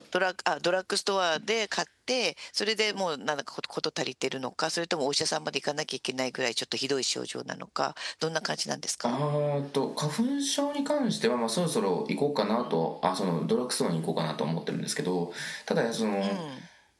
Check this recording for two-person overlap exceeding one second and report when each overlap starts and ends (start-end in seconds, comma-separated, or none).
none